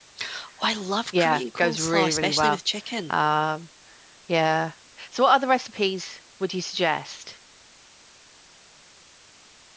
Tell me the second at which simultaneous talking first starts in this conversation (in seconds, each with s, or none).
1.2 s